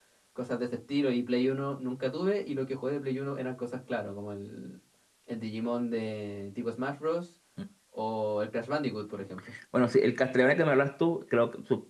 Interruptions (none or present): none